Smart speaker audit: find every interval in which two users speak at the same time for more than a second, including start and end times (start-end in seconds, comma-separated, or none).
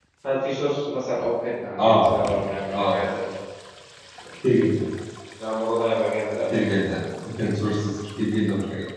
none